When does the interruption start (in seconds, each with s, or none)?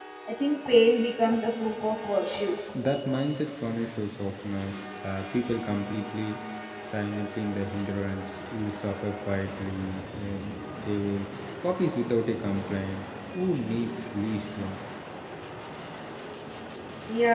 none